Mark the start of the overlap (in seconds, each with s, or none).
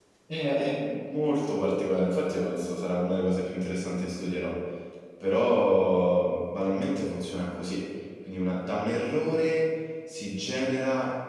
none